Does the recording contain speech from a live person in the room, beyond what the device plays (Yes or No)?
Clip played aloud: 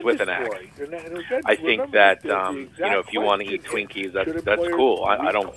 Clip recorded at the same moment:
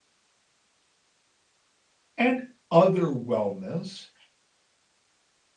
Yes